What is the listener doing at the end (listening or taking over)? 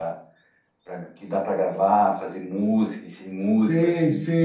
taking over